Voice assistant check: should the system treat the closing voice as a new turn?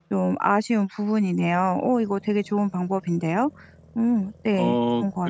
Yes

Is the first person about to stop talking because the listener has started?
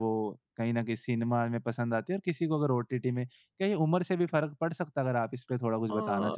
Yes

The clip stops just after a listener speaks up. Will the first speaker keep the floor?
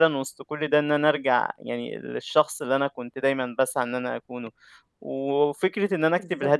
Yes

